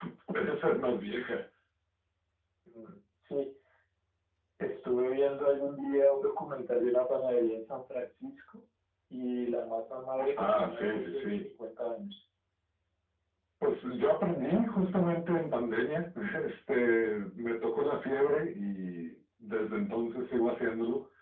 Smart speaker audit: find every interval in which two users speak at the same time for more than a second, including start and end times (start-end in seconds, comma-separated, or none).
10.2-11.4